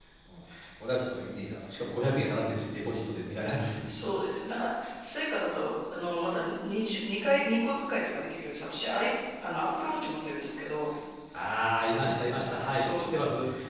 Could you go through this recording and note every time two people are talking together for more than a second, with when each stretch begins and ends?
none

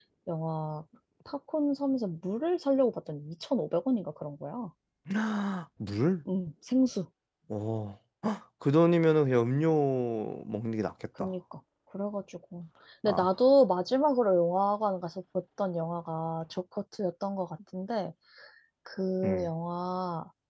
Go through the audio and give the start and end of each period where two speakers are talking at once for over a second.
none

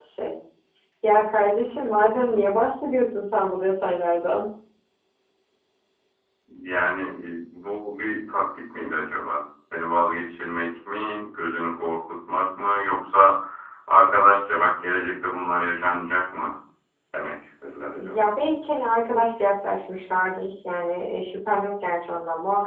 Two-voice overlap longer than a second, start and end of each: none

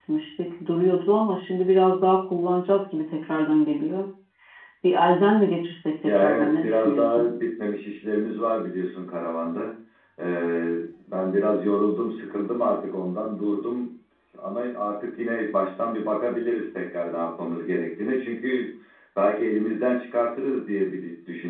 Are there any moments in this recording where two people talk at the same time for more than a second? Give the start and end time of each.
6.0-7.3

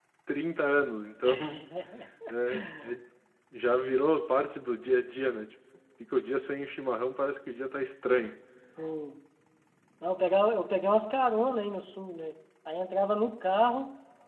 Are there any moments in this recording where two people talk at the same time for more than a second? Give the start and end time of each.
none

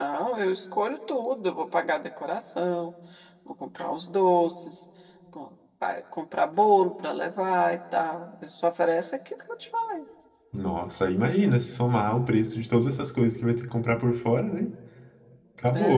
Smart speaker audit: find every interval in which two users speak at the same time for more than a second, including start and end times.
none

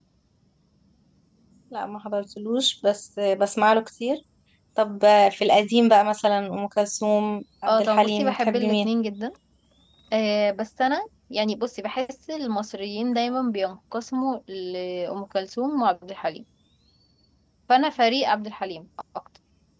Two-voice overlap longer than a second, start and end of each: 7.7-8.9

